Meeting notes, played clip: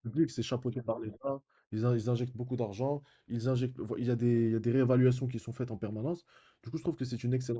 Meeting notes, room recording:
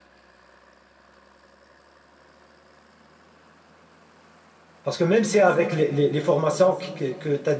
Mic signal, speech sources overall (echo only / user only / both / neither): user only